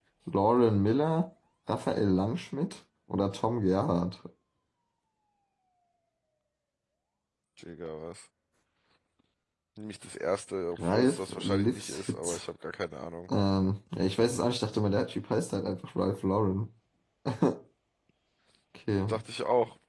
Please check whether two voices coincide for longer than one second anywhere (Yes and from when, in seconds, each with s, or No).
Yes, from 10.8 s